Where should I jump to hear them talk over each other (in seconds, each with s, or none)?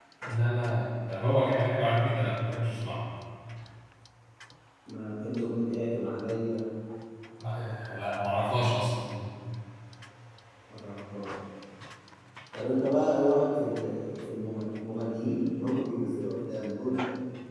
none